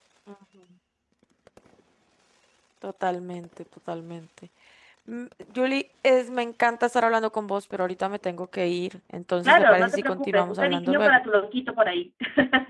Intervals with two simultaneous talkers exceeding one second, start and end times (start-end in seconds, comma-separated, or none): 9.4-11.2